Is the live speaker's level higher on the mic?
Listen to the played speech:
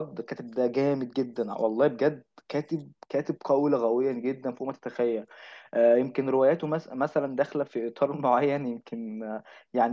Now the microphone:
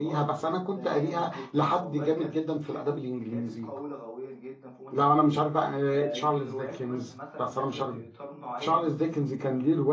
Yes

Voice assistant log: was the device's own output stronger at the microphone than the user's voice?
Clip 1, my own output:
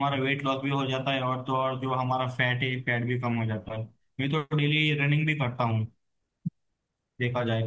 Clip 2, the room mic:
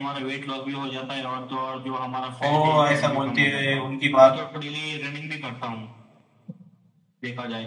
No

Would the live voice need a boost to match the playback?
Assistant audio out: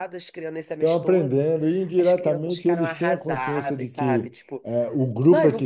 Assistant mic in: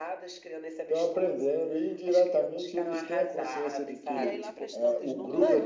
Yes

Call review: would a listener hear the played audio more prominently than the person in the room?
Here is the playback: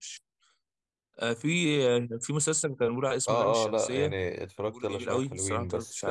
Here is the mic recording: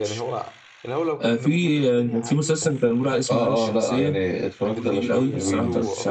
Yes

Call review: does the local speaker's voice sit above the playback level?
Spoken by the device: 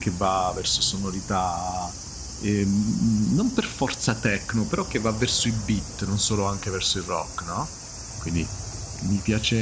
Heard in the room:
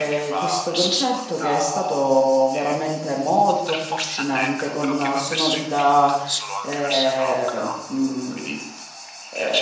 Yes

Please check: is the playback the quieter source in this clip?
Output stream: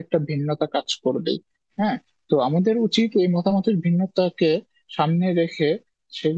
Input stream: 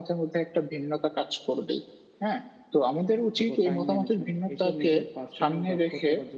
No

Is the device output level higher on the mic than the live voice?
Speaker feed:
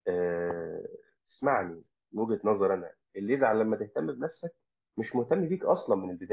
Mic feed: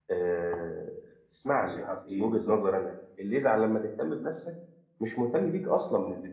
Yes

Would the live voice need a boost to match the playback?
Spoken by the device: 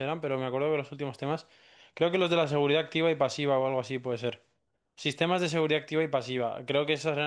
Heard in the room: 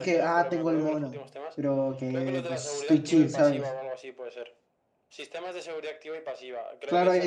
No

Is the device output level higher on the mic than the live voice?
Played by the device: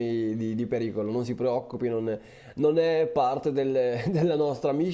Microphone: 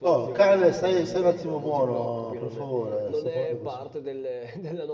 No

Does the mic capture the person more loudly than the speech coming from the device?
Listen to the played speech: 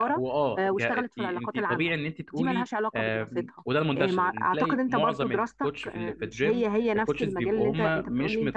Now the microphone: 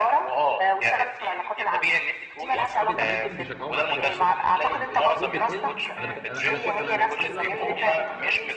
No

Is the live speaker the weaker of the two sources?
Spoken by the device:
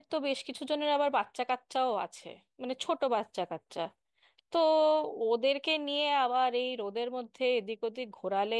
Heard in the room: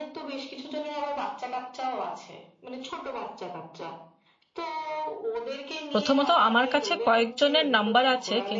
No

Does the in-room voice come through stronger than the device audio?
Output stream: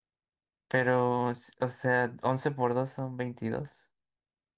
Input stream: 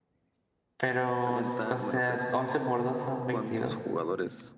No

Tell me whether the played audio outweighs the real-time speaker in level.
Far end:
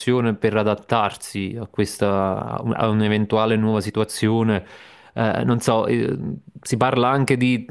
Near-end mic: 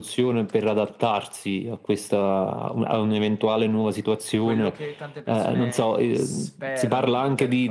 Yes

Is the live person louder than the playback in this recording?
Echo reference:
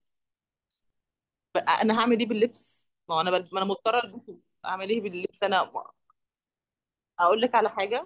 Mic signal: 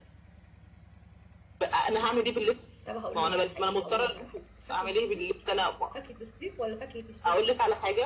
No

